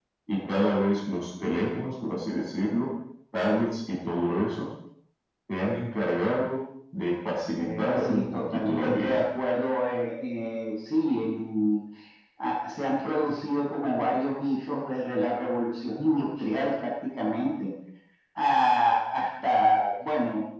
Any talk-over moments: Yes, from 7.6 s

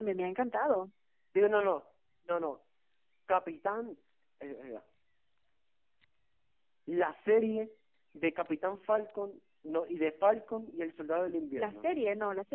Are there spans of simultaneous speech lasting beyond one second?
No

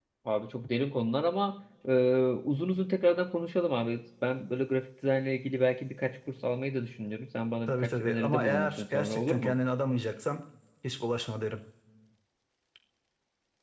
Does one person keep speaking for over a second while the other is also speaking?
Yes, from 7.7 s

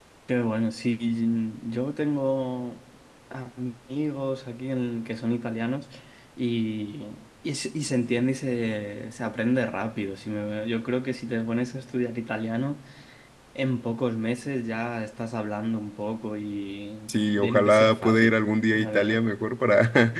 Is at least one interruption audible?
Yes, from 17.1 s

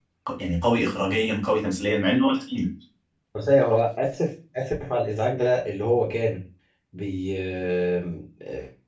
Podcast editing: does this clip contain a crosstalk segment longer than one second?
No

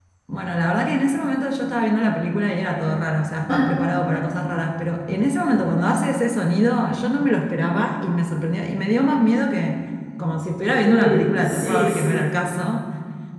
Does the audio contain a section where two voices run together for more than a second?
Yes, from 10.7 s

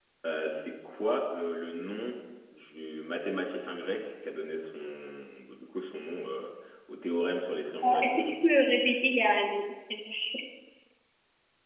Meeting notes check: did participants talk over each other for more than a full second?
No

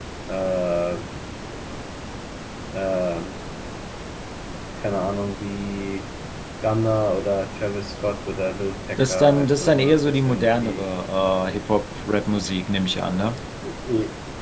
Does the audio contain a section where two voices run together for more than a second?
Yes, from 9.0 s

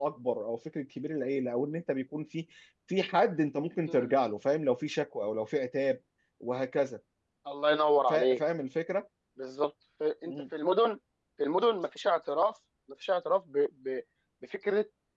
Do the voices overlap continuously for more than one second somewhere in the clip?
No

